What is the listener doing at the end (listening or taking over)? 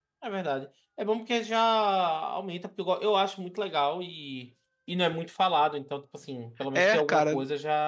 taking over